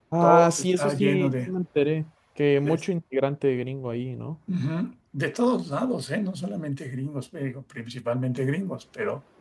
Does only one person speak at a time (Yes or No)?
No